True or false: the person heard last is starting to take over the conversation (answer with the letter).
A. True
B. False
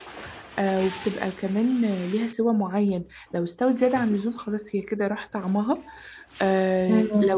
B